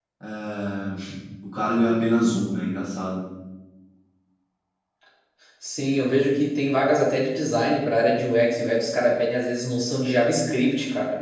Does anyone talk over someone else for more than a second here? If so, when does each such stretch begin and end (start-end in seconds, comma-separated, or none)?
none